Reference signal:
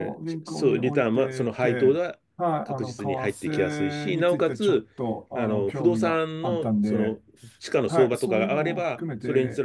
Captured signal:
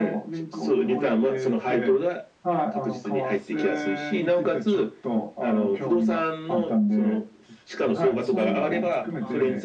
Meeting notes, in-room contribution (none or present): present